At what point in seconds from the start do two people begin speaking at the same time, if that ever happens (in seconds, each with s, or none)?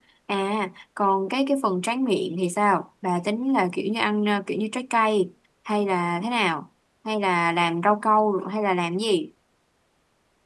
none